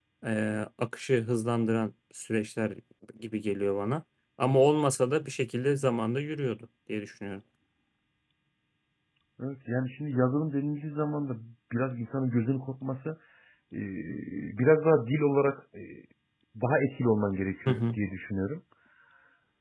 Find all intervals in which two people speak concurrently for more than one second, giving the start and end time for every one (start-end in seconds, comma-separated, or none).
none